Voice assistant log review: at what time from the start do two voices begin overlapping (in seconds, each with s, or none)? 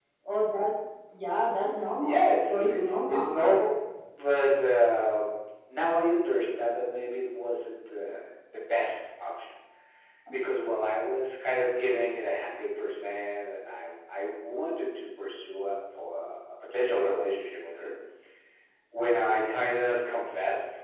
2.0 s